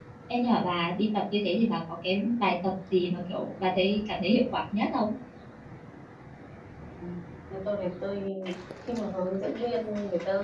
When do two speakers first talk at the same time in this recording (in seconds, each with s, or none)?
none